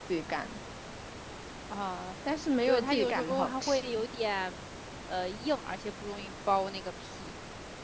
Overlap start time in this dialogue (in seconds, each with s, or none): 2.6 s